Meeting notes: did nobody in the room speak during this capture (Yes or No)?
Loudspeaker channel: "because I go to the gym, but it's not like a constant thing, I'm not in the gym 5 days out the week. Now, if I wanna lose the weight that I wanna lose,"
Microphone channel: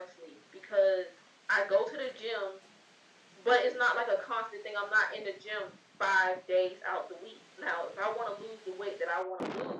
Yes